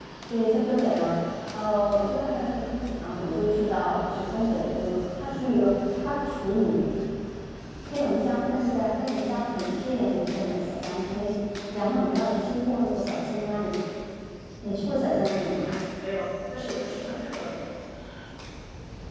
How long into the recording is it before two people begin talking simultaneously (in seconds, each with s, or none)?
none